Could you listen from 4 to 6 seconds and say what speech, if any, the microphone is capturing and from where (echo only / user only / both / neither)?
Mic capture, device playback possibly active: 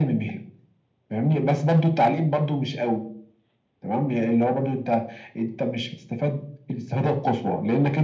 echo only